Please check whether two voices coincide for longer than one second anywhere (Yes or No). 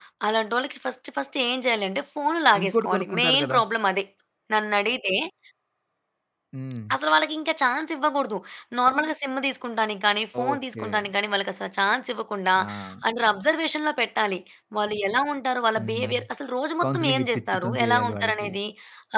Yes